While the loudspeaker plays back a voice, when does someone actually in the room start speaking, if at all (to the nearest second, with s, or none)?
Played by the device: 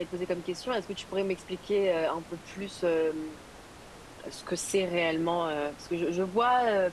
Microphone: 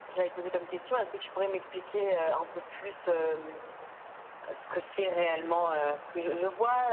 none